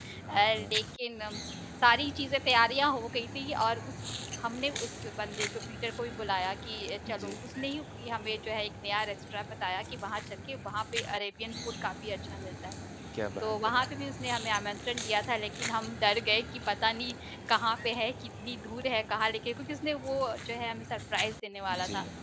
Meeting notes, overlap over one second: none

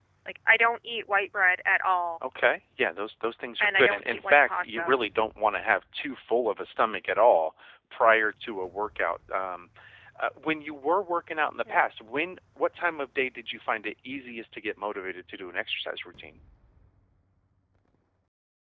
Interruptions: present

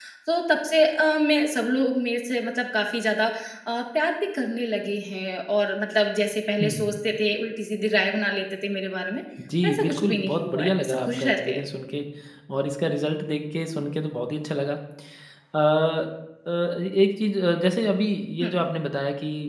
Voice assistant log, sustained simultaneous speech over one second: present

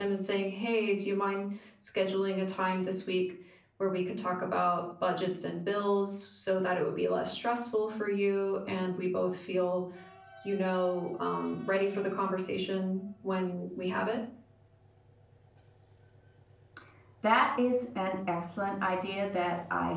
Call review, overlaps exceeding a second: none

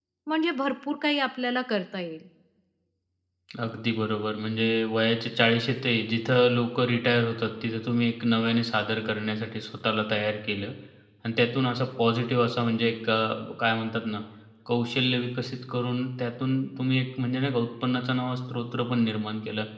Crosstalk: none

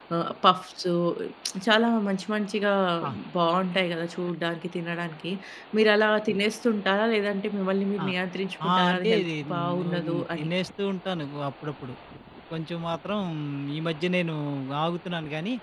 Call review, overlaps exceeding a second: present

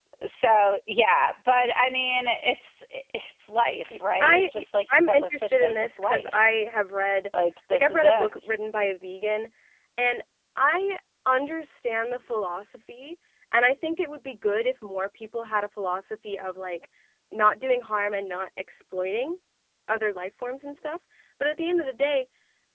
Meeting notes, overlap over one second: present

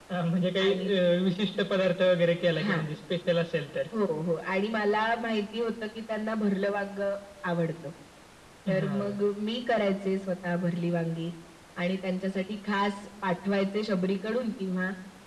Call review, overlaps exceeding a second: none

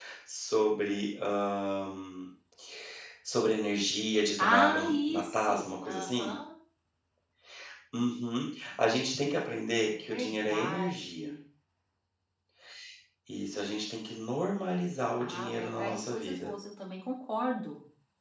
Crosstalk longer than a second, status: present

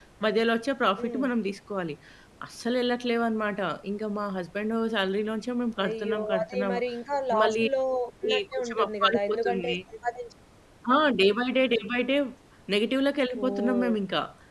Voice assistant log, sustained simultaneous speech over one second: present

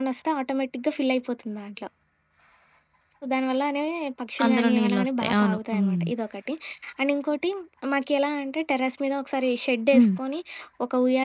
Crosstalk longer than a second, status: present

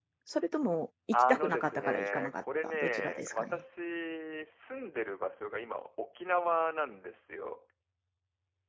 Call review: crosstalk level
present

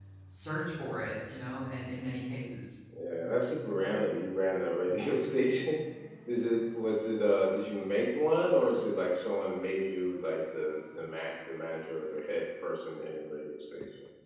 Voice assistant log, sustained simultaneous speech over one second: none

